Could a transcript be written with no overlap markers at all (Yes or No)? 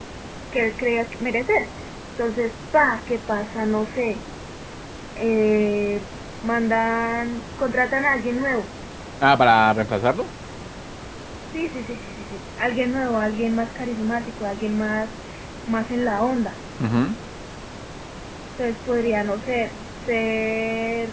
Yes